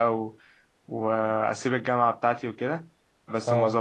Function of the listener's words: listening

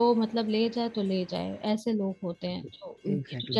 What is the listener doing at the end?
taking over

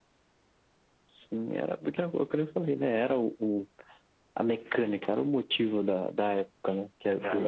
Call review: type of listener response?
listening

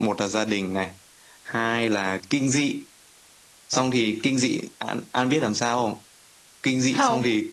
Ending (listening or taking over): listening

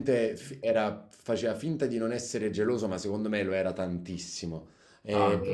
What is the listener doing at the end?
listening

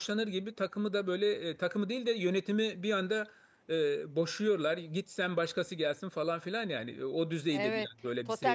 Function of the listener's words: taking over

